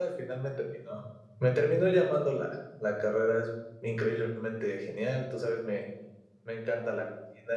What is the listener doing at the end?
listening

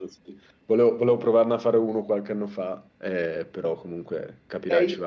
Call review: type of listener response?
taking over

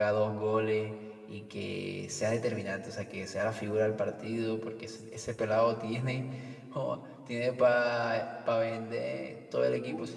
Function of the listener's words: taking over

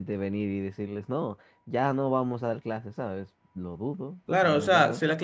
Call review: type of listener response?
taking over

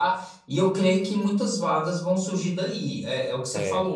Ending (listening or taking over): listening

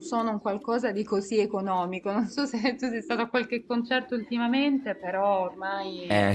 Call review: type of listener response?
taking over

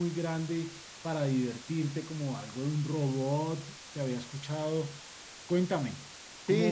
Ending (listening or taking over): taking over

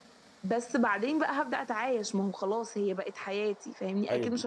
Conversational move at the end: taking over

